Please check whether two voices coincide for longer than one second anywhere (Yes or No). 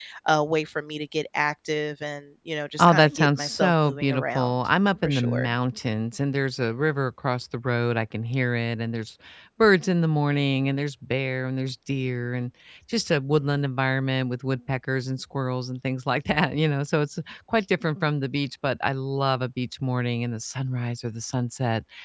Yes